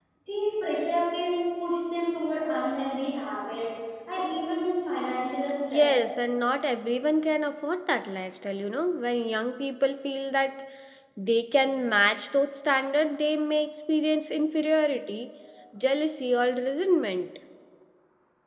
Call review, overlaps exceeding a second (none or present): none